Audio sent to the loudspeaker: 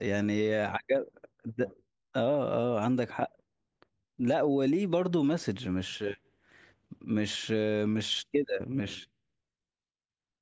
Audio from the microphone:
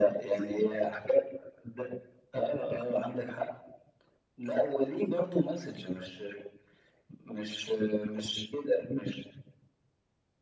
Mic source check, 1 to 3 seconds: echo only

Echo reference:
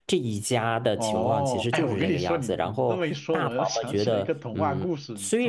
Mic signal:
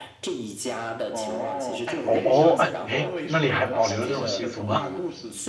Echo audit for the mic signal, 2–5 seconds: both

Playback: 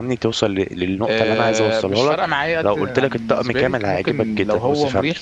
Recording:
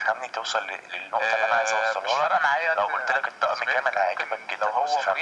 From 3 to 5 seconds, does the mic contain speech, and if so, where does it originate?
echo only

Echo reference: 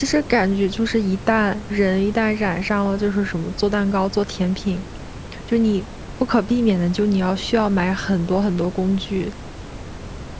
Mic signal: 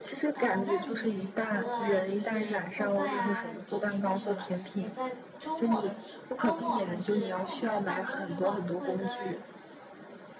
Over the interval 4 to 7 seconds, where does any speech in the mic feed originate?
both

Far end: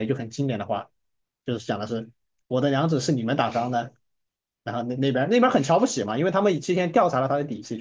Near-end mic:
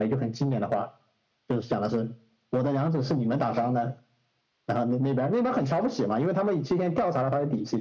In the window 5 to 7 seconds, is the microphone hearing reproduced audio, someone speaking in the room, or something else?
echo only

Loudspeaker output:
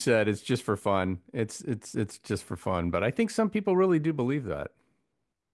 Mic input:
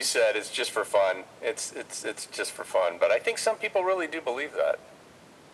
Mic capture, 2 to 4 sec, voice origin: echo only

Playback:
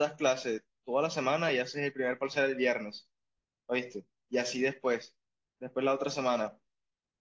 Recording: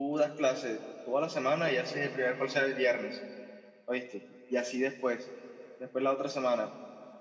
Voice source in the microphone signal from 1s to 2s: echo only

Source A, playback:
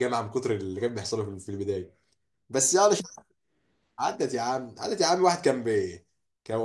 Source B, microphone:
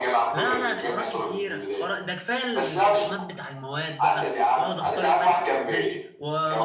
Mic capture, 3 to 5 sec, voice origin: both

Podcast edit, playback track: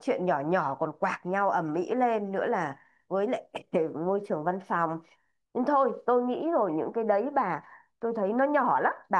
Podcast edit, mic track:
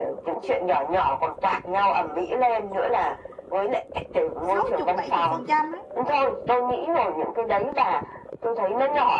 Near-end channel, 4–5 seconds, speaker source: both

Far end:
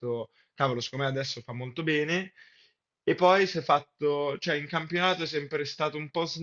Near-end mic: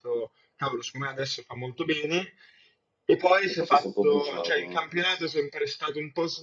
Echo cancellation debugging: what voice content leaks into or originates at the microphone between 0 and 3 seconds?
echo only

